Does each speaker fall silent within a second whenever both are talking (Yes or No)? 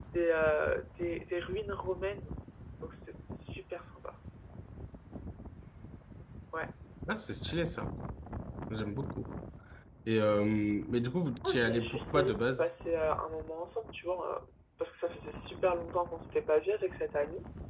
No